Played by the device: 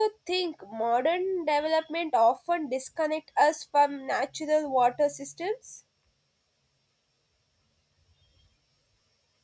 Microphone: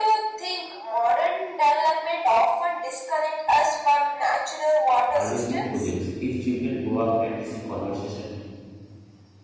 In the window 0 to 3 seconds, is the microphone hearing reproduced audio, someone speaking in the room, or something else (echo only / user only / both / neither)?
echo only